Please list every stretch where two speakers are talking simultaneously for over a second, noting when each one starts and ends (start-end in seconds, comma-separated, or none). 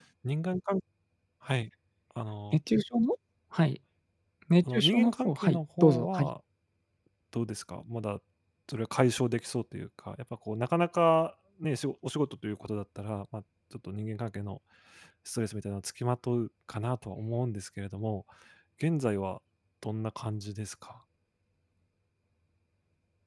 4.7-6.3